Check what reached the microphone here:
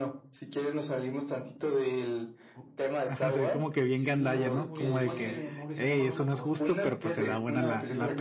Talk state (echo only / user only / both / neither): both